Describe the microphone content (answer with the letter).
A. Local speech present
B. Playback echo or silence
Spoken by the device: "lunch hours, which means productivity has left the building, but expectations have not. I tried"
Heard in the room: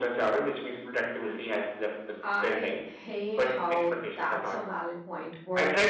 A